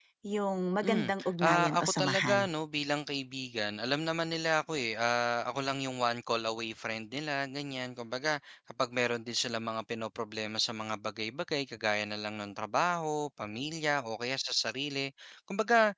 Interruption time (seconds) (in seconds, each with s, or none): 0.8 s